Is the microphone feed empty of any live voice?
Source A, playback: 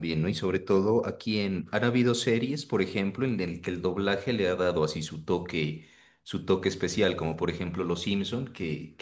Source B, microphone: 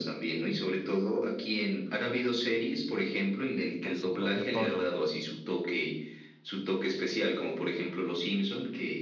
No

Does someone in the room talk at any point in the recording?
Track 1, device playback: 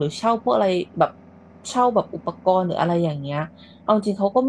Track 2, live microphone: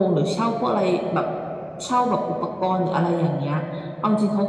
No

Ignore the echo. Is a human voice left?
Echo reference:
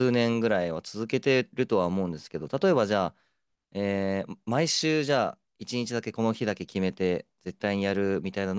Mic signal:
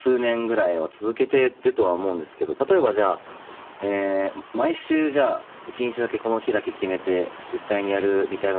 No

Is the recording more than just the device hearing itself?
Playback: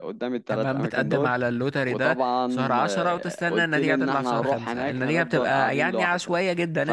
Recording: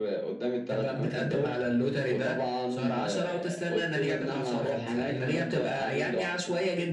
No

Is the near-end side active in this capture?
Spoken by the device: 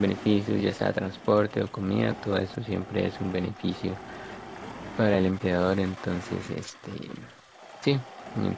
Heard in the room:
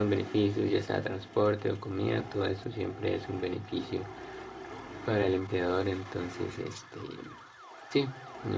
No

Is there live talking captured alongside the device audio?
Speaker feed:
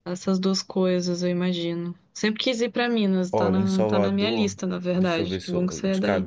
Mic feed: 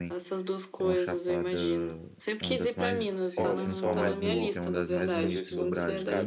Yes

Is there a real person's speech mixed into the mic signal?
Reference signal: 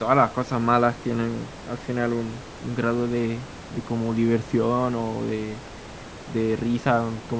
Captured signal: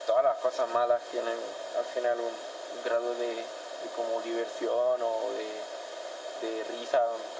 No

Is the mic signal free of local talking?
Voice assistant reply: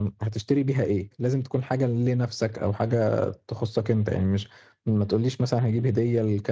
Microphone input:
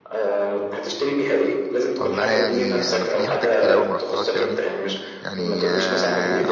No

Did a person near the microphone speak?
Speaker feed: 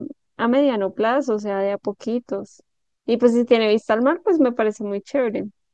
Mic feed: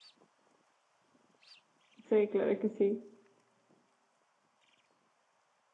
Yes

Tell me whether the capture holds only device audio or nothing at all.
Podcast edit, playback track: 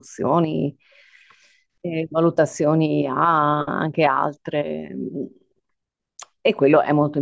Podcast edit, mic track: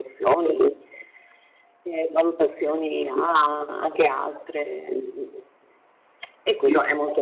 Yes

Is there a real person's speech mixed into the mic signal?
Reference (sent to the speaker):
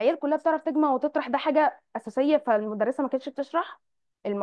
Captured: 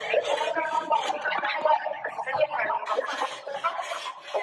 No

